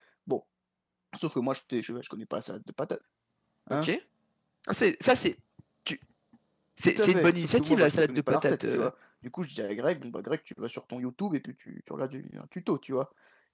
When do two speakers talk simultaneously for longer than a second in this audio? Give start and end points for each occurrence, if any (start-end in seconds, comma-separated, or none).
6.8-8.9